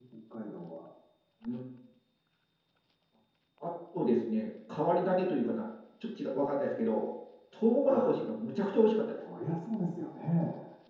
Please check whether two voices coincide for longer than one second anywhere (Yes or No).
No